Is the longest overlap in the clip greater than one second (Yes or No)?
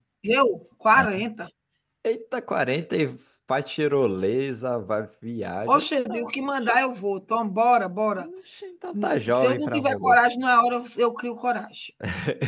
Yes